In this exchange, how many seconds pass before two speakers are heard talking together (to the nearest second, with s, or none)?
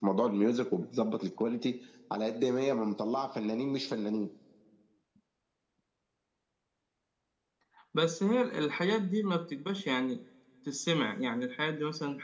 none